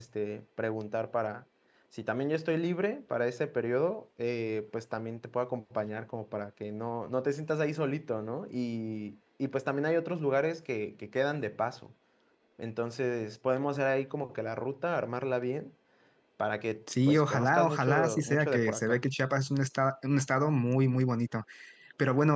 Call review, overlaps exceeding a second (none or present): present